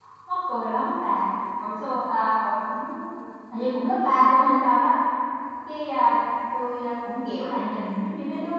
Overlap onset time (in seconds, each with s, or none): none